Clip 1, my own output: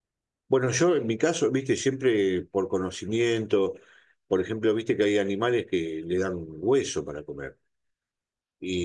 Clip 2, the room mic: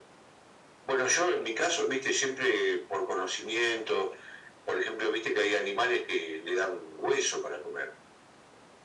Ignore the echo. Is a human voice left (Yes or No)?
No